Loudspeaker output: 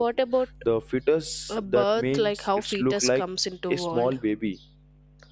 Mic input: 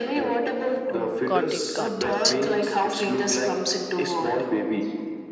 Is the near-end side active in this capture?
Yes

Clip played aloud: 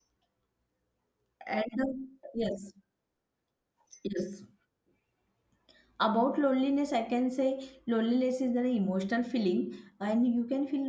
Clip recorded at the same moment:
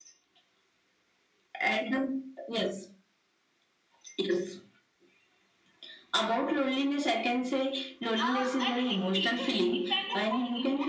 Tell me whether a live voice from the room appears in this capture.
Yes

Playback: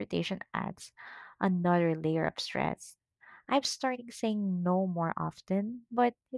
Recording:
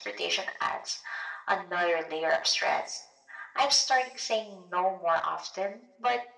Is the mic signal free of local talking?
Yes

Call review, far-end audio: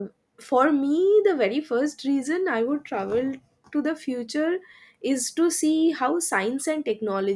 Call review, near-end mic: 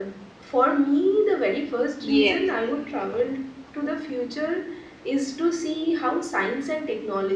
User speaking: Yes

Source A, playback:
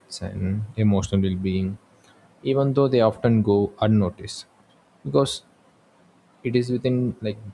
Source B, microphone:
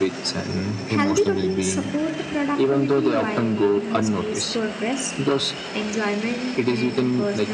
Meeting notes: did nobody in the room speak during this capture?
No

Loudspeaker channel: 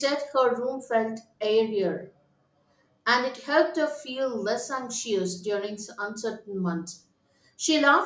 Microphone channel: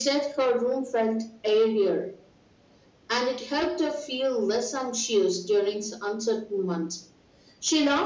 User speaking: No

